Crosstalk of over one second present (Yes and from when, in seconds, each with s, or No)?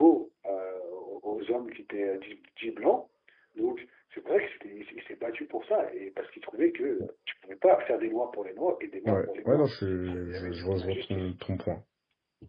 Yes, from 9.1 s